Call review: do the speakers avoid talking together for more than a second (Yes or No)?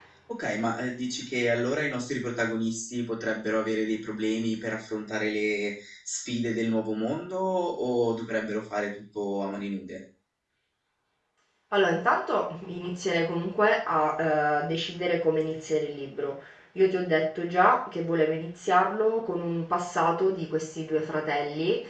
Yes